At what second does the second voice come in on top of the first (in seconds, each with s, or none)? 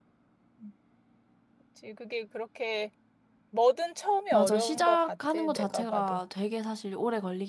4.3 s